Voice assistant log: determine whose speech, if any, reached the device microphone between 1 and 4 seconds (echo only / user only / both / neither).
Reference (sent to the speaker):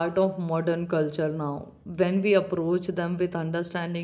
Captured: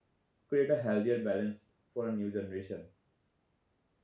user only